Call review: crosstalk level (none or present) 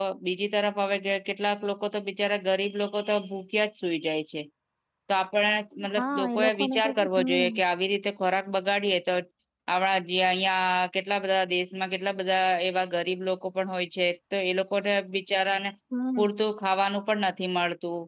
present